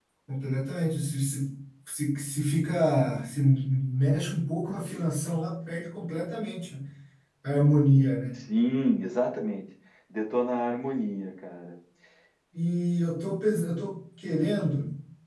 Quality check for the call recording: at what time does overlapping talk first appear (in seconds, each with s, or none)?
none